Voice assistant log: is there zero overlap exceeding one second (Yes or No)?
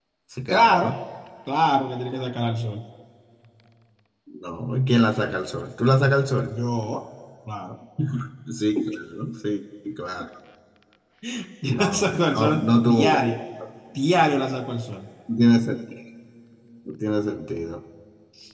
No